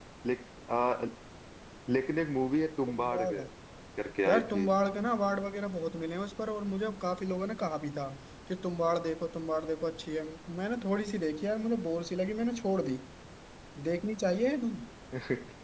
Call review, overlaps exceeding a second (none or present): none